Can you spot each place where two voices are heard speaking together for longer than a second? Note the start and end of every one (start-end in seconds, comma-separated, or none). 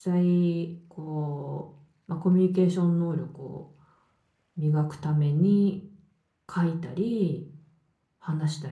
none